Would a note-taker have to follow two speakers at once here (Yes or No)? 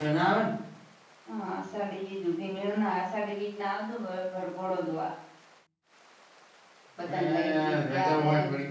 Yes